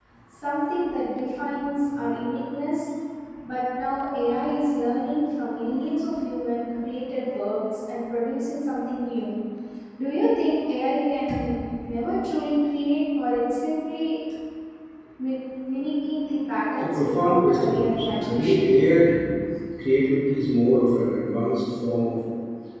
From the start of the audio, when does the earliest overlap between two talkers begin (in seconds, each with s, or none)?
16.8 s